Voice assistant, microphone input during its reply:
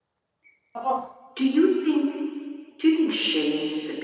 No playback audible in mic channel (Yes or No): No